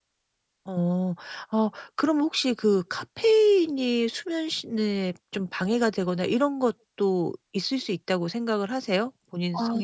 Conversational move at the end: taking over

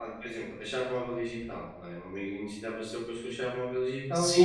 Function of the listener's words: taking over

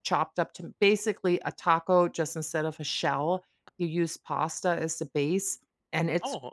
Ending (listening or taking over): listening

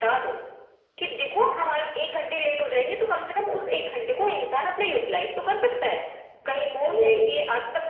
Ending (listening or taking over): listening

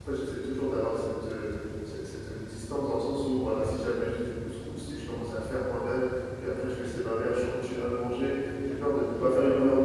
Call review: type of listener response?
listening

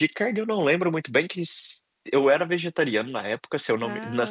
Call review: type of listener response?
listening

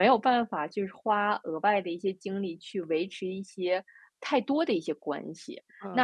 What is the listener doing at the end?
taking over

